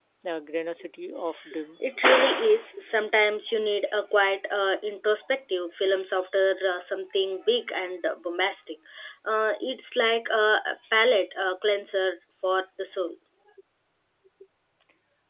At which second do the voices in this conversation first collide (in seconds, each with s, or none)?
none